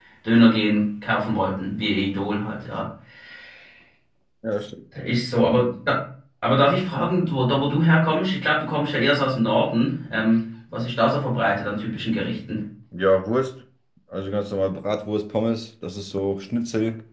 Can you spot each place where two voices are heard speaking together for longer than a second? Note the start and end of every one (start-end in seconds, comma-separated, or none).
none